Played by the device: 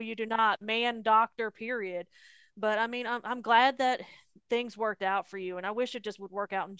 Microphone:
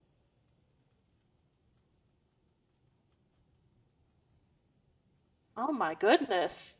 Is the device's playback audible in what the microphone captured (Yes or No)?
No